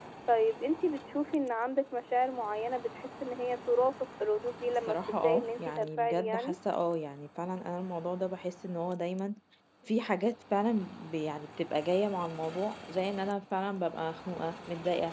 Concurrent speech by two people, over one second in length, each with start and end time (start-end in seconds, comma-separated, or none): 4.9-6.5